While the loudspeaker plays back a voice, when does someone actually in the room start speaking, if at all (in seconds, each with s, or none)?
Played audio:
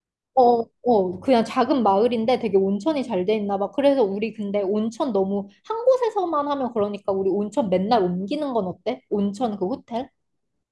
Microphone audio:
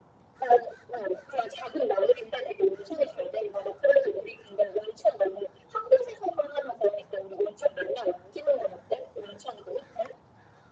none